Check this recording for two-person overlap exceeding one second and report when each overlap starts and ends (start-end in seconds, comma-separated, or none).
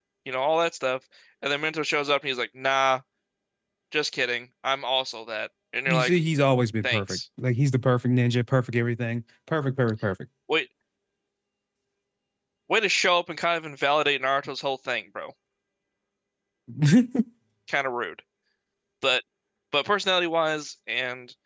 none